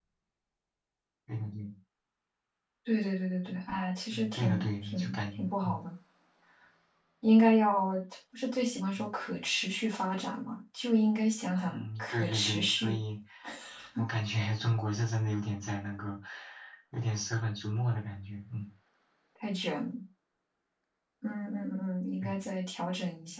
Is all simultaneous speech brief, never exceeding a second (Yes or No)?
No